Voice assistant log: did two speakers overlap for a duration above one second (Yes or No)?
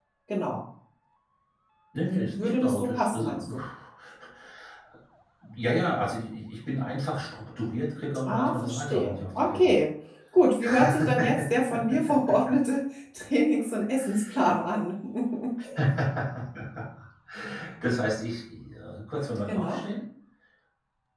Yes